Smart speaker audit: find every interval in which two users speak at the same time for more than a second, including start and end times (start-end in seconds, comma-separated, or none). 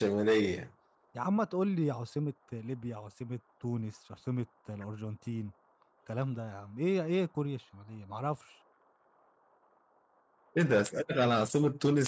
none